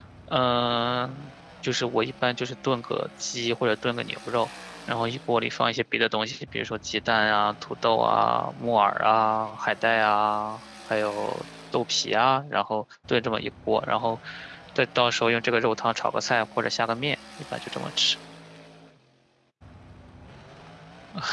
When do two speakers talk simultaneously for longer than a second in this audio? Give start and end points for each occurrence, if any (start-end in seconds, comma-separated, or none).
none